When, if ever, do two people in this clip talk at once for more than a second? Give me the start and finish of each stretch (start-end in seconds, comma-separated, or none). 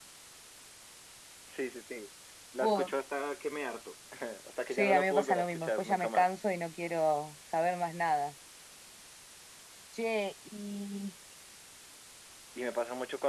4.8-6.3